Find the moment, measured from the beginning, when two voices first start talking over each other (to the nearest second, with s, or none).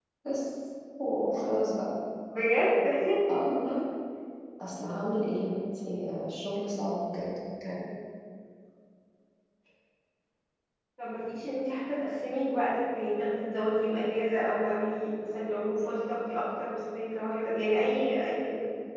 none